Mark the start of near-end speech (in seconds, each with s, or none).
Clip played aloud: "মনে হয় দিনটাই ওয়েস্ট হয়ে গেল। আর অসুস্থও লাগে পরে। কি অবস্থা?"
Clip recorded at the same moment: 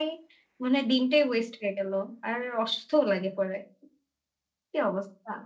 none